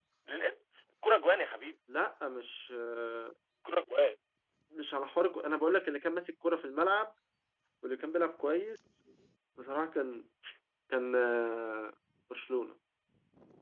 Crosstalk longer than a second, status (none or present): none